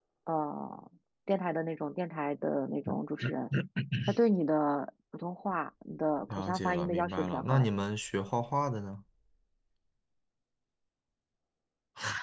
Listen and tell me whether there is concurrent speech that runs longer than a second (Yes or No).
Yes